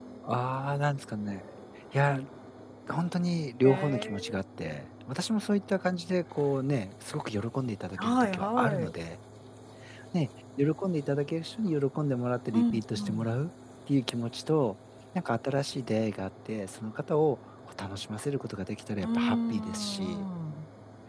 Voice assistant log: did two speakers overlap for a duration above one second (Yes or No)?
Yes